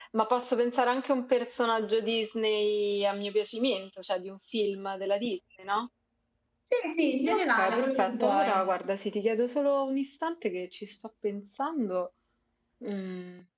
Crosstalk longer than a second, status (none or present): present